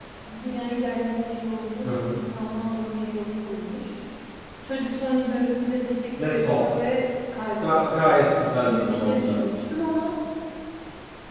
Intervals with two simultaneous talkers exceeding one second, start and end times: 7.6-9.6

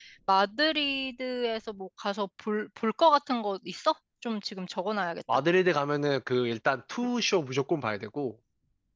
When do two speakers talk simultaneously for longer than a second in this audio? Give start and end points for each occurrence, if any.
none

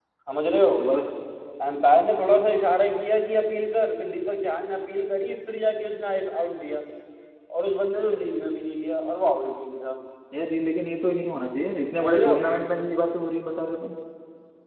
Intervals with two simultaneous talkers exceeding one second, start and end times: none

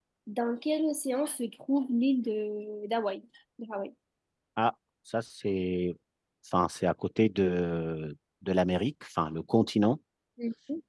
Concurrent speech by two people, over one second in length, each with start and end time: none

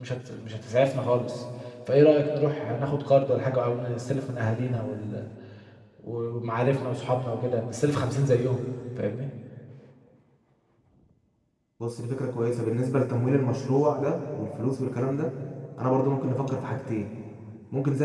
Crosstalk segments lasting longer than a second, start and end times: none

